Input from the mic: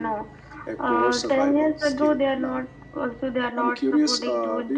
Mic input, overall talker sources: echo only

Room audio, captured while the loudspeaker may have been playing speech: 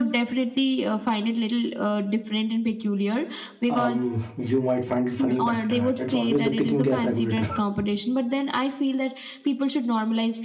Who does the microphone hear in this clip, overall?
both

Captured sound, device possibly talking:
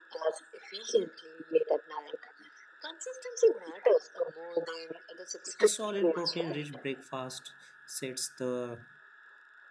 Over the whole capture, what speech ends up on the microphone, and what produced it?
both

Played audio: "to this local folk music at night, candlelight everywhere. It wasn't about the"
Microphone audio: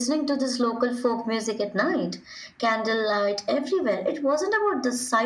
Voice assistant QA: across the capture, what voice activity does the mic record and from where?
echo only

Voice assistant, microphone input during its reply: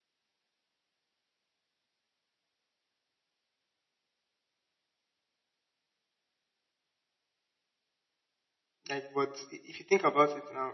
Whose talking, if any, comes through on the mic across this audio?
user only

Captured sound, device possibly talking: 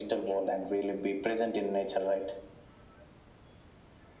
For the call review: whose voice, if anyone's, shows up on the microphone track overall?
echo only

